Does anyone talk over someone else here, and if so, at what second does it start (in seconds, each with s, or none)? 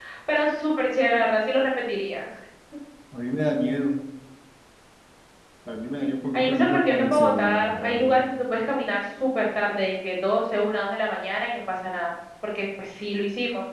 6.3 s